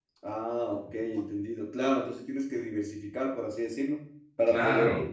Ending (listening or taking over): listening